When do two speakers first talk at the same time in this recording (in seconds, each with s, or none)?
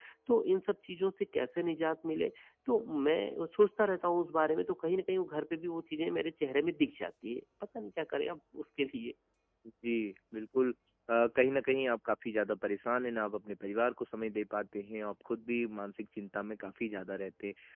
none